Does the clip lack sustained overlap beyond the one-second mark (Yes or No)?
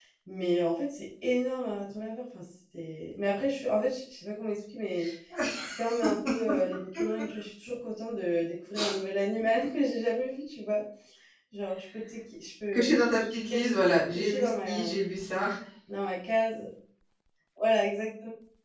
No